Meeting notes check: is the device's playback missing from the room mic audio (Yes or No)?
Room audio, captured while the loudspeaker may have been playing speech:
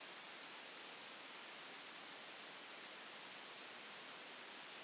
Yes